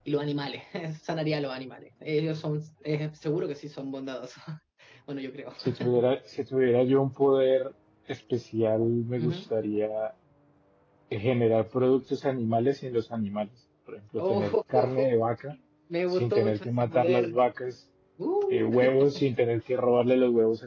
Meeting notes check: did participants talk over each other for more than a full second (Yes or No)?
Yes